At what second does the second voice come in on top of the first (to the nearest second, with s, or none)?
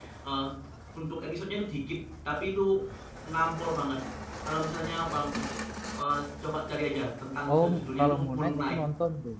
7 s